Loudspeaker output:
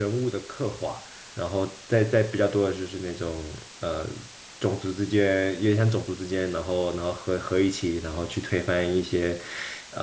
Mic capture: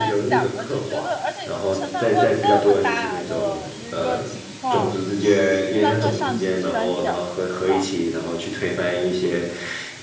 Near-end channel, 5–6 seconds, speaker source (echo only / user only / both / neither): both